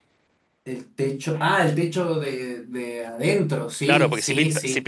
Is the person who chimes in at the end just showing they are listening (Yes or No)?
No